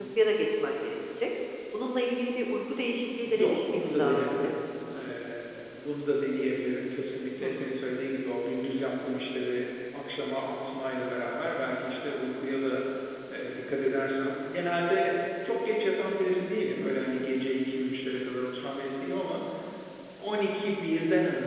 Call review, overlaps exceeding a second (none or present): present